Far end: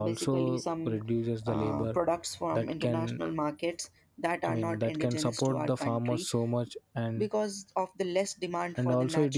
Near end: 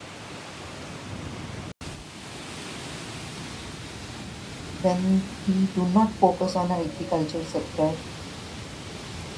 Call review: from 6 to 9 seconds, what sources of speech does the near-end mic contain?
user only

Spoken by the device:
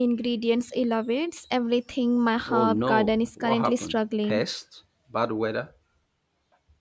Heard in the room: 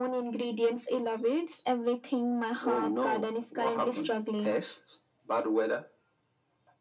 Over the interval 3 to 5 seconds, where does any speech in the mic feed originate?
echo only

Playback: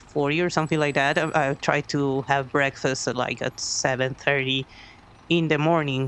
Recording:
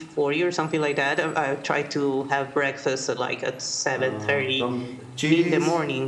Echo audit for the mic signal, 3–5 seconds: both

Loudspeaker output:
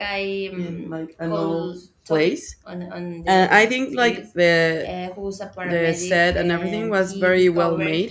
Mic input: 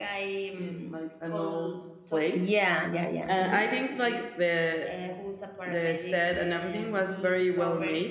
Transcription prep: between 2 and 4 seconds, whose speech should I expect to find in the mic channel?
both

